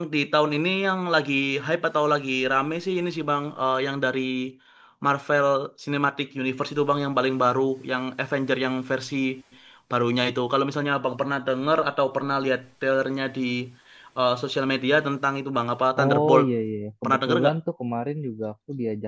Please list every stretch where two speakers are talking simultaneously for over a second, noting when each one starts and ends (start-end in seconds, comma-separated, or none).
none